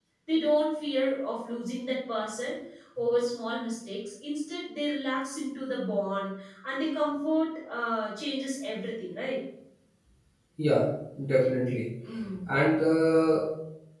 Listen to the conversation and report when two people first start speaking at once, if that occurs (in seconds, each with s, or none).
none